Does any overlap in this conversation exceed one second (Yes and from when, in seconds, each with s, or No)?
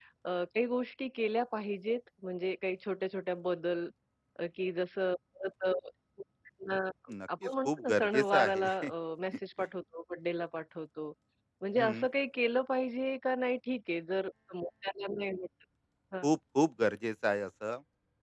Yes, from 7.4 s